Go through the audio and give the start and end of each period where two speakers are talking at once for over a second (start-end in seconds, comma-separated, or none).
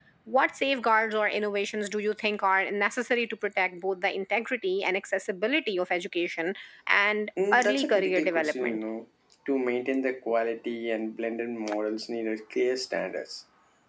7.5-8.8